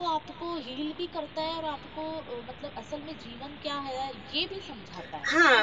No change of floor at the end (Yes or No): No